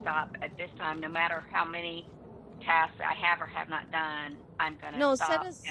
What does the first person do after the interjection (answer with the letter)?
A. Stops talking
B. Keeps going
A